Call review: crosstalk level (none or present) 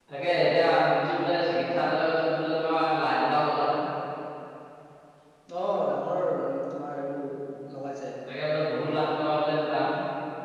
none